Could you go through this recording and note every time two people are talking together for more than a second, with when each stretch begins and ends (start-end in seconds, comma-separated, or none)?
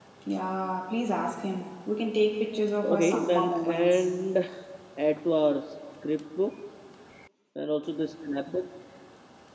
2.8-4.0